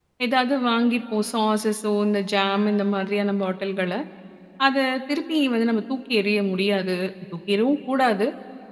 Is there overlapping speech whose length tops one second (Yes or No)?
No